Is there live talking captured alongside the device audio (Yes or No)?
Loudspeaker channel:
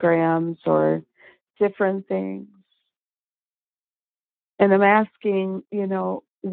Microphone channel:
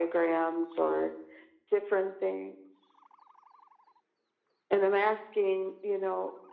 No